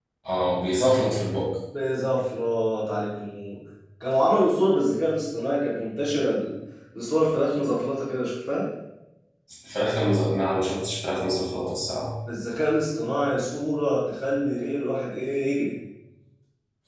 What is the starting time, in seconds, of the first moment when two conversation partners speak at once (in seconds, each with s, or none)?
none